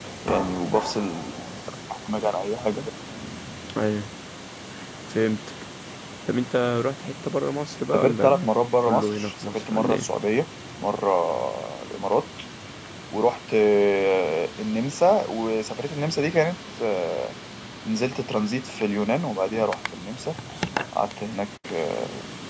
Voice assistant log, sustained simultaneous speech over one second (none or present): present